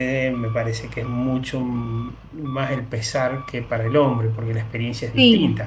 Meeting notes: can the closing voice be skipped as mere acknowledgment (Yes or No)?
No